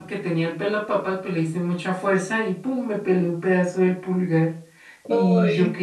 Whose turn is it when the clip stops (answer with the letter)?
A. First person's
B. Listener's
A